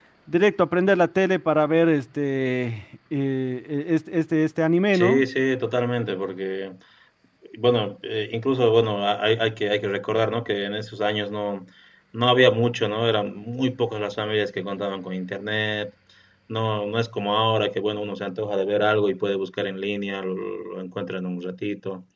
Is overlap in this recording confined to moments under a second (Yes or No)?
Yes